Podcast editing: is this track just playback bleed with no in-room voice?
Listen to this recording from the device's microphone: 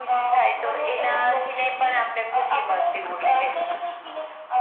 Yes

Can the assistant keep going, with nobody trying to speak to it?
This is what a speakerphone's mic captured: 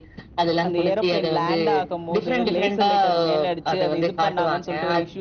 No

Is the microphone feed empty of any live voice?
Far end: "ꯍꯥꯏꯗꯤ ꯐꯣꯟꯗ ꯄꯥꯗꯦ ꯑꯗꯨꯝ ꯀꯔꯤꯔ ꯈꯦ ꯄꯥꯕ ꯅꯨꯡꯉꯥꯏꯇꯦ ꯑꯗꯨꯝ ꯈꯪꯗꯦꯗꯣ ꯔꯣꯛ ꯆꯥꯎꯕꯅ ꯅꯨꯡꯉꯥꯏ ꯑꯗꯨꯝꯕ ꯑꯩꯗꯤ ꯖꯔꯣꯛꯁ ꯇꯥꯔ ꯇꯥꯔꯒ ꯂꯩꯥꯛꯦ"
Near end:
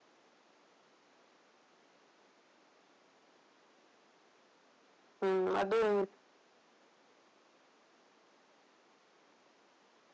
No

